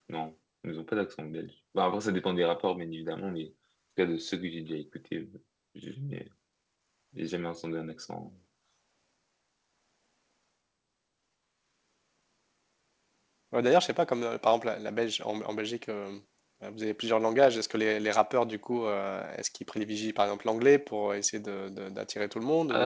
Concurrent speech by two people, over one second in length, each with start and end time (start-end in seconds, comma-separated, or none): none